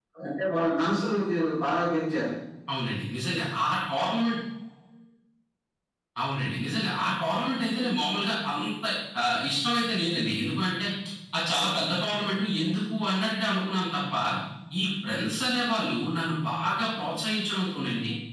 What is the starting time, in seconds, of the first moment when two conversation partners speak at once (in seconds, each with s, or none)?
none